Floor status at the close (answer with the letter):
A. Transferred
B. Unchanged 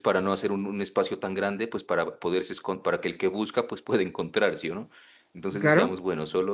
B